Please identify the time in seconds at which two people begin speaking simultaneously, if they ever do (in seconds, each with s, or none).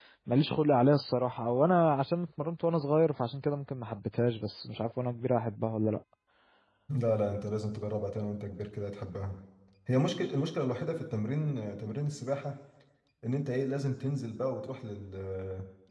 none